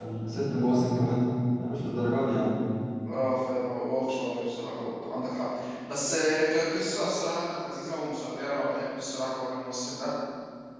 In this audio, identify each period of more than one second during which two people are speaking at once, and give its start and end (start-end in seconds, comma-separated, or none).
none